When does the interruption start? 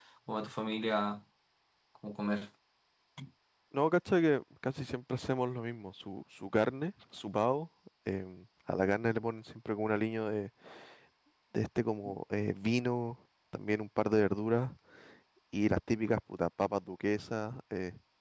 none

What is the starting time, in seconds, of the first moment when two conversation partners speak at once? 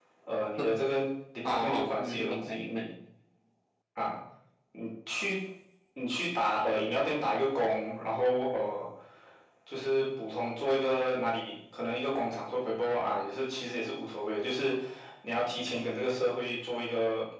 1.4 s

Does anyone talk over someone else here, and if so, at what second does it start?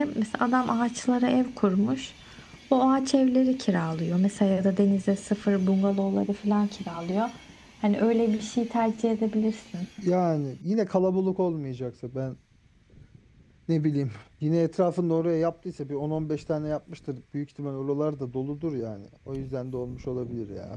none

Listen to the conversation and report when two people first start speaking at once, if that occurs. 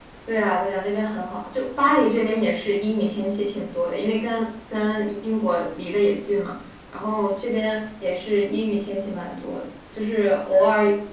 none

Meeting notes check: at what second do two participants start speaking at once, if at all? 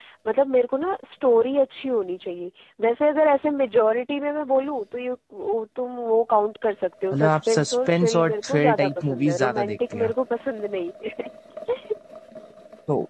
7.1 s

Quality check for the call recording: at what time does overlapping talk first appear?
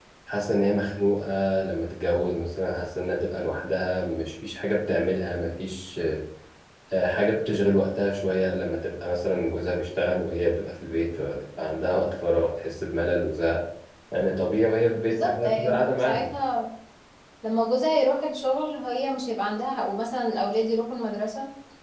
15.1 s

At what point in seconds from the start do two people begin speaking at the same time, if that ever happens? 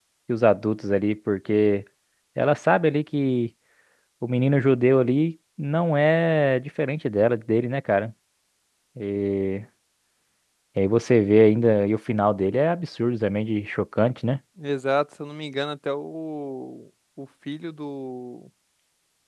none

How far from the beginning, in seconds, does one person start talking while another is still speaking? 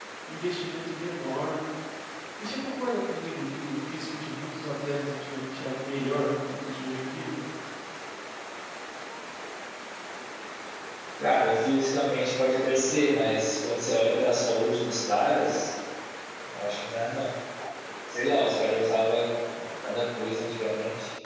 none

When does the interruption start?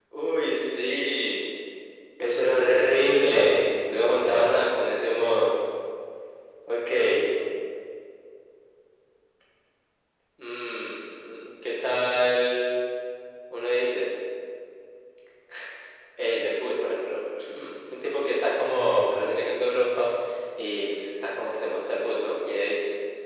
2.9 s

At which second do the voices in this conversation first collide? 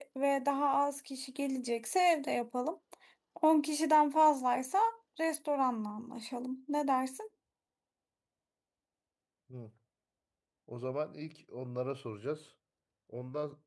none

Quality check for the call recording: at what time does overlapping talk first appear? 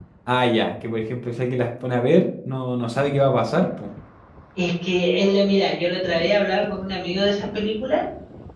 none

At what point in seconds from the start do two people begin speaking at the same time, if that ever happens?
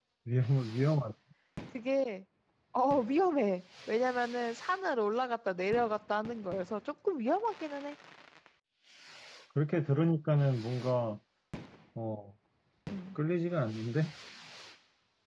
none

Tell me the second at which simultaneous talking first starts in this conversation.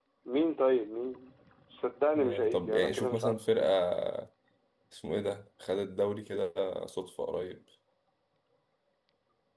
2.1 s

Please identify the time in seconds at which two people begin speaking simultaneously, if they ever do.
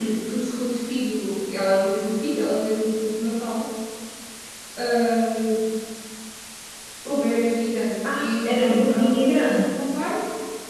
8.0 s

